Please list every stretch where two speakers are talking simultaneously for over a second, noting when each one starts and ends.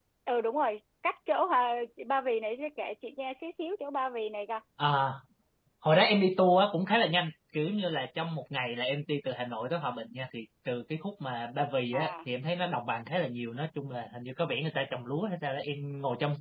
none

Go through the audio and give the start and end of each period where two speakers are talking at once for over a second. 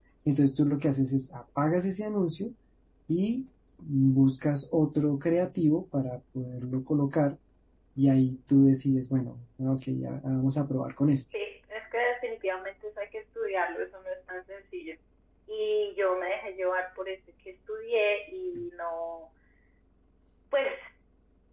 none

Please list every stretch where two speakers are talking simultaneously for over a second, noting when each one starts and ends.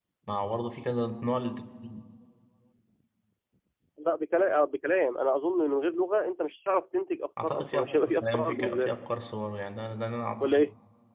7.4-8.9

